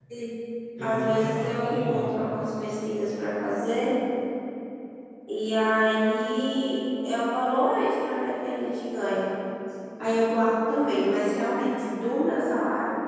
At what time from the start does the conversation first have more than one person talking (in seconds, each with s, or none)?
0.8 s